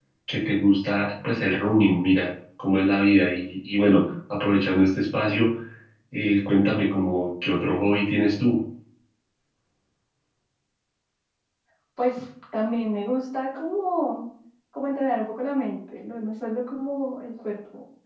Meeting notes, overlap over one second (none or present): none